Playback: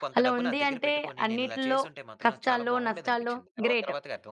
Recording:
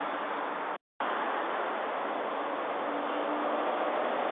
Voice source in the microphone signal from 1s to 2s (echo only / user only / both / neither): neither